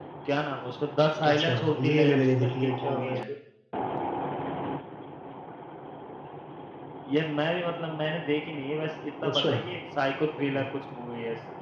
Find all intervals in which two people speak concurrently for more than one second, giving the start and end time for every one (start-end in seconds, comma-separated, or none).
1.3-3.3